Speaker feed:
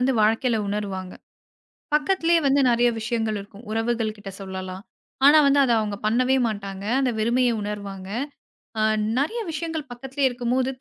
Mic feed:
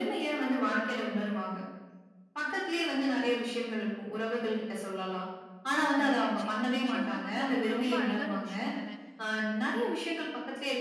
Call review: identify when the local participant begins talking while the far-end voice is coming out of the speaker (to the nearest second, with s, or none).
6 s